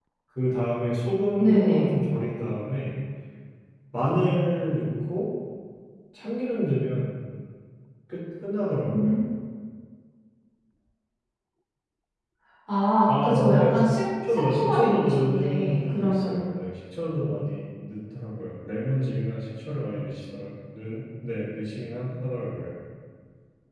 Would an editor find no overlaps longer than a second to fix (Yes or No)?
No